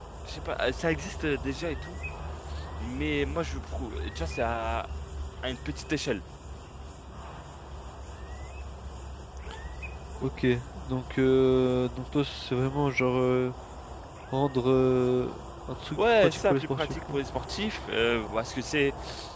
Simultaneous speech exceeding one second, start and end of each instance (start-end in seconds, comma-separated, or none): 16.0-17.2